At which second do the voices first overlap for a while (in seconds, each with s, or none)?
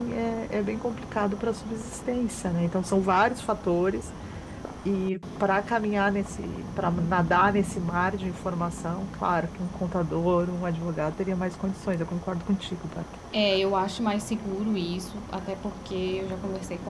none